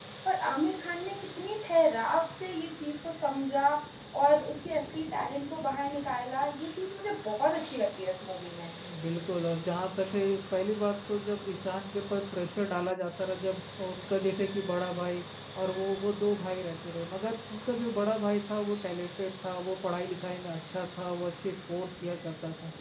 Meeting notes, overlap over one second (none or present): none